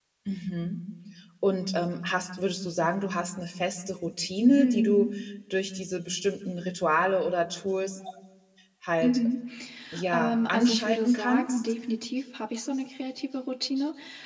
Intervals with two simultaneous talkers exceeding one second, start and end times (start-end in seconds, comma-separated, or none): 10.1-11.6